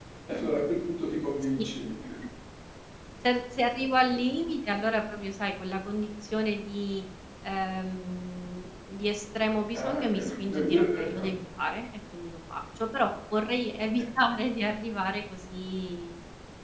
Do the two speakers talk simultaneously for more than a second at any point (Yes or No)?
Yes